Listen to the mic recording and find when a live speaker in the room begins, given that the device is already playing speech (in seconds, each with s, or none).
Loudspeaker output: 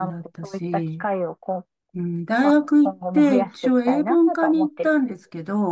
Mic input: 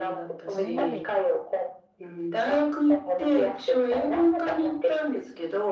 0.5 s